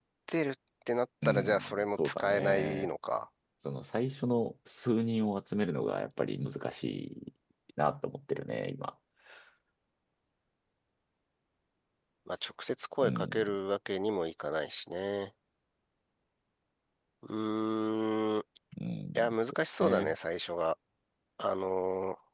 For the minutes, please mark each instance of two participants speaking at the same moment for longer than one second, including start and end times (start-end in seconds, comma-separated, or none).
1.2-2.9